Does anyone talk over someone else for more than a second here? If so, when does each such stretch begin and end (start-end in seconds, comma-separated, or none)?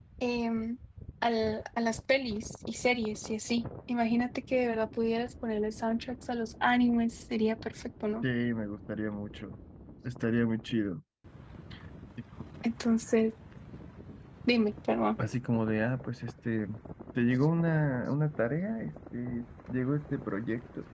none